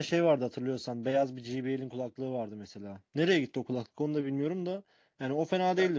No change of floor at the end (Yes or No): Yes